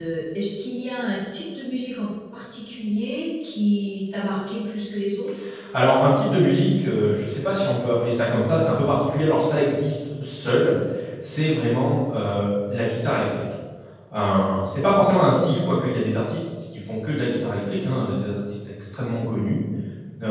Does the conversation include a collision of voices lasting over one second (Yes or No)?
No